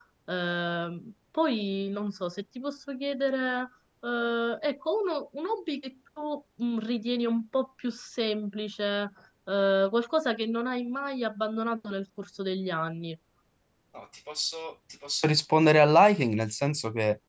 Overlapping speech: No

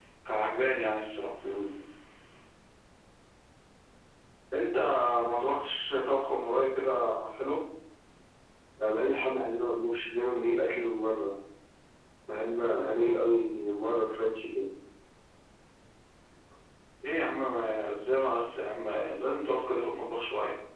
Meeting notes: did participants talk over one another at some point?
No

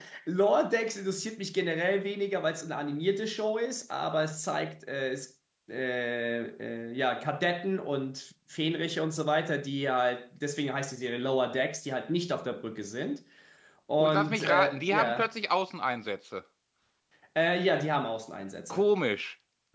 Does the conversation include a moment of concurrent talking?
Yes, from 14.0 s

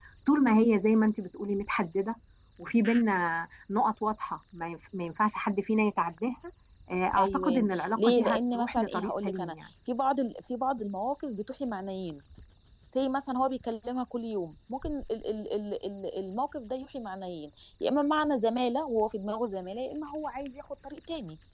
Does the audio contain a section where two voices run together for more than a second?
Yes, from 7.2 s

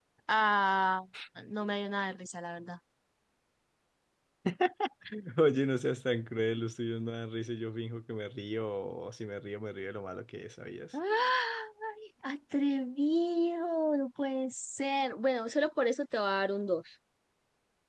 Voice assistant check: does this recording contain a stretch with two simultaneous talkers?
No

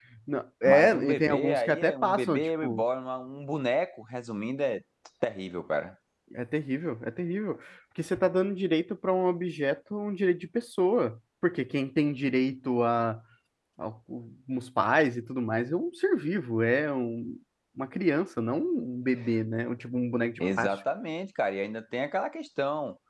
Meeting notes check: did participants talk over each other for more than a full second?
Yes, from 0.7 s

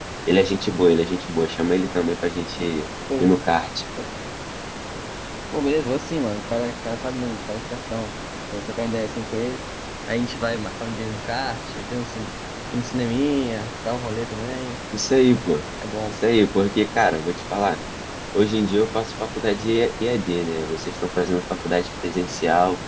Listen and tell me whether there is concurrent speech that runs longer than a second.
No

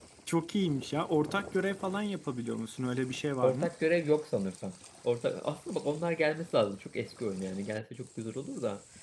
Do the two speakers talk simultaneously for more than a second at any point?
No

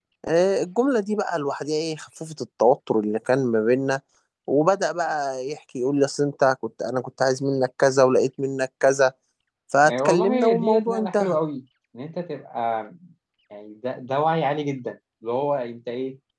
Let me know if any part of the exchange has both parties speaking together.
Yes, from 9.8 s

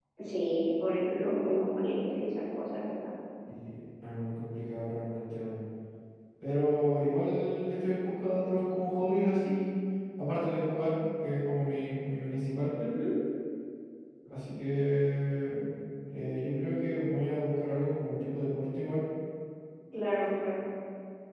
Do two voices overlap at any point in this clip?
No

